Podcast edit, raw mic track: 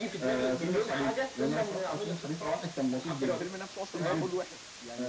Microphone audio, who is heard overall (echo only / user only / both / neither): both